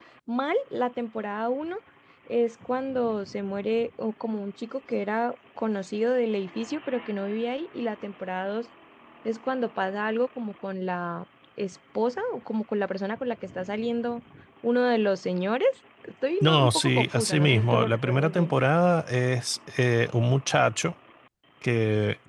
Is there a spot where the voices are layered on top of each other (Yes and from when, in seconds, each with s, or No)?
Yes, from 16.4 s